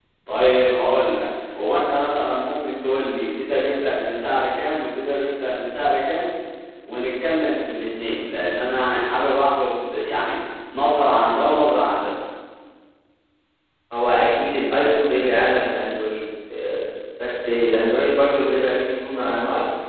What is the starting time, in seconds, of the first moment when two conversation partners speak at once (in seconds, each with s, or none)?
none